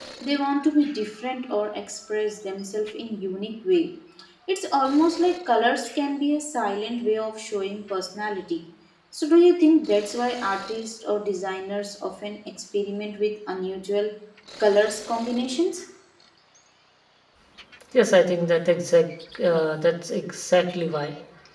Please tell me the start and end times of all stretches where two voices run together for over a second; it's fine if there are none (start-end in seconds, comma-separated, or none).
none